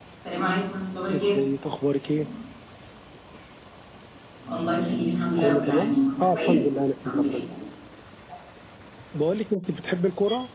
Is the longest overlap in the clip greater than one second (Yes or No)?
Yes